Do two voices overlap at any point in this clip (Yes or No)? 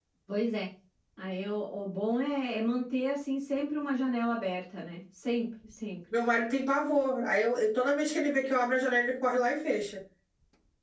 No